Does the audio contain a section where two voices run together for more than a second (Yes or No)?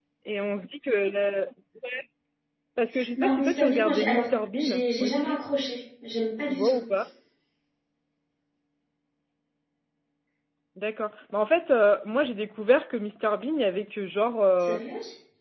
Yes